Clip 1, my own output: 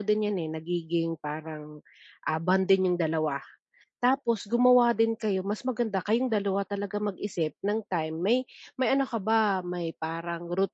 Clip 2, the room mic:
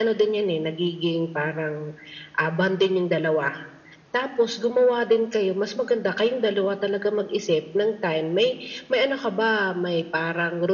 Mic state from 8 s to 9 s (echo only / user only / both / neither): echo only